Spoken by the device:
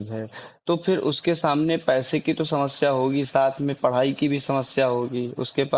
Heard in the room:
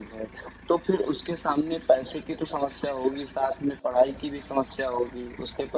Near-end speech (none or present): none